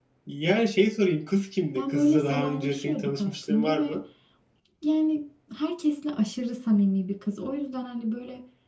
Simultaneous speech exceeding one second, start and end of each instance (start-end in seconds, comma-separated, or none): 1.7-4.0